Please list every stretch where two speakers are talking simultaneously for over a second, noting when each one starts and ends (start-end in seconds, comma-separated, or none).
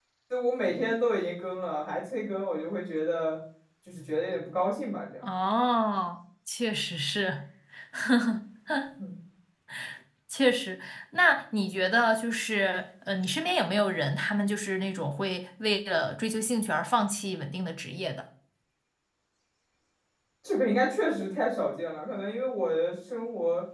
none